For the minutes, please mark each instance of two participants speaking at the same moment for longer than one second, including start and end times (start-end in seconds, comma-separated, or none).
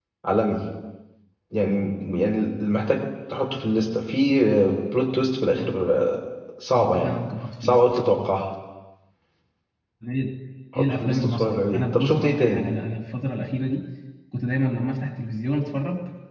10.8-12.6